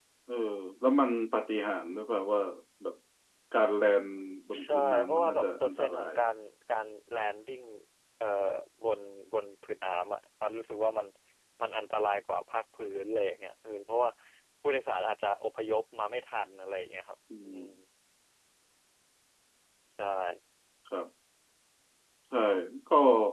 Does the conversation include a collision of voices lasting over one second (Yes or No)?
Yes